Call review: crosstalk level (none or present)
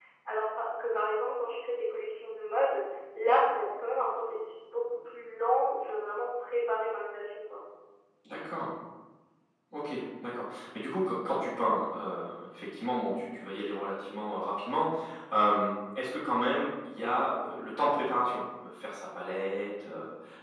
none